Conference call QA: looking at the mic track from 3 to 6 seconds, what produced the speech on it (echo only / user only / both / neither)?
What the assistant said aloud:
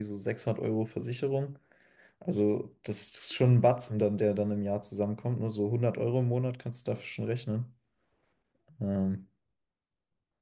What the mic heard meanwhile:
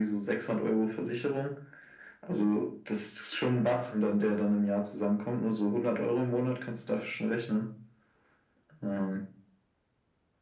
echo only